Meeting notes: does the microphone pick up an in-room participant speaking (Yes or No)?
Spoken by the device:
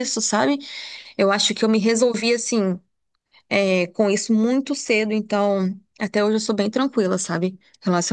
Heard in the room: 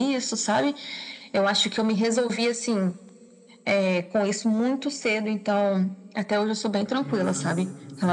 Yes